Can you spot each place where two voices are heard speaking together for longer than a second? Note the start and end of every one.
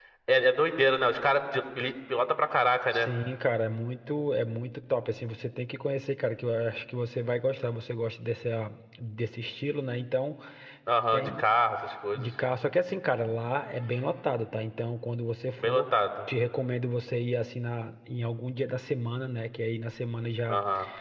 none

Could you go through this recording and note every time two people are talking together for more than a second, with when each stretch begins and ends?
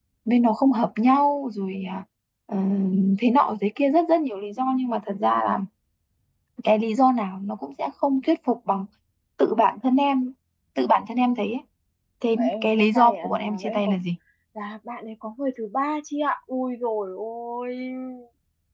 12.4-14.0

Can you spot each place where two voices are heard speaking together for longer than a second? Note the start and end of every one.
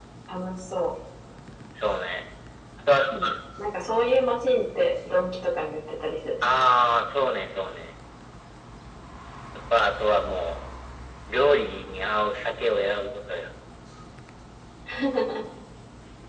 none

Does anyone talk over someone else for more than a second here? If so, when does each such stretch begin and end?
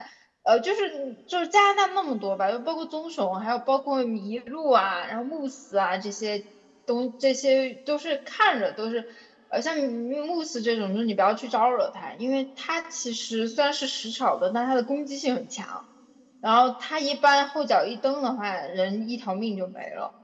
none

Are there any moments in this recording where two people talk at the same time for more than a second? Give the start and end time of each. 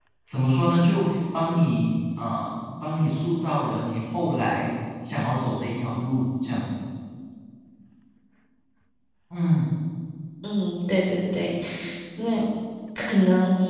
none

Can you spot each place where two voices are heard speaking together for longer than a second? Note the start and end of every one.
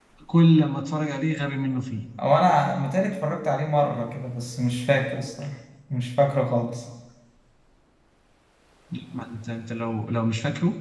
none

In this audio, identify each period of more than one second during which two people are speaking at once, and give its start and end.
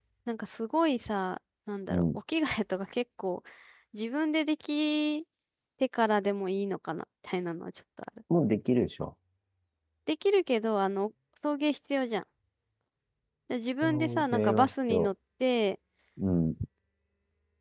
13.8-15.1

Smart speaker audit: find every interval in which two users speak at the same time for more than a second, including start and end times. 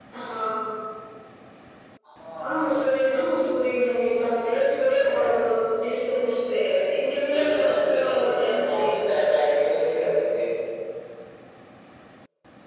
7.1-9.3

